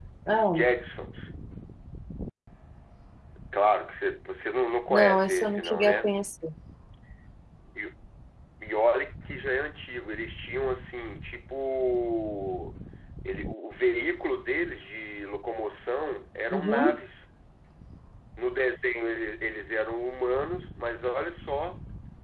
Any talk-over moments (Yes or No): Yes